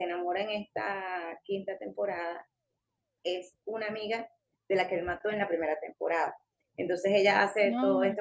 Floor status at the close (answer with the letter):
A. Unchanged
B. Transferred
A